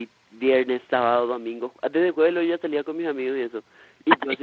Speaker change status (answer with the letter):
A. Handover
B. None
B